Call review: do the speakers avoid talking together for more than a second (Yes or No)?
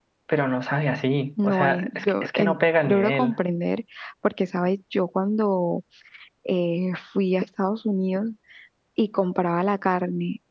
No